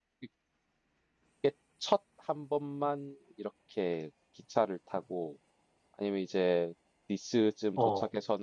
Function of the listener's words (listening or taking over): listening